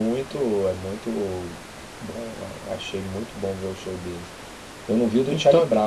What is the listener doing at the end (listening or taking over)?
listening